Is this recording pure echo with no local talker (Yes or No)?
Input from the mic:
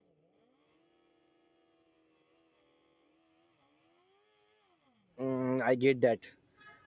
No